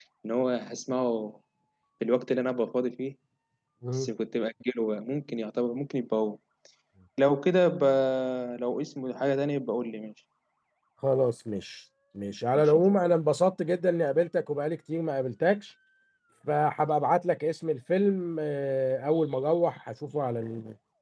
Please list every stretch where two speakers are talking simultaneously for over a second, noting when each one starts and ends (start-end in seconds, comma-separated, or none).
none